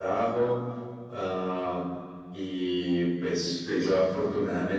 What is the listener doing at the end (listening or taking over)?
listening